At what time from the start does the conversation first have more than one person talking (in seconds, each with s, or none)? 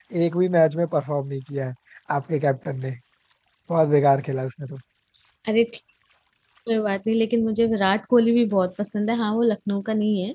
none